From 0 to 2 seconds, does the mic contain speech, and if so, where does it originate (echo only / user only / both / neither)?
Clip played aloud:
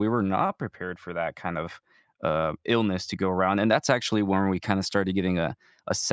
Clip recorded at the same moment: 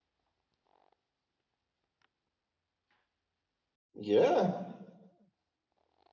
neither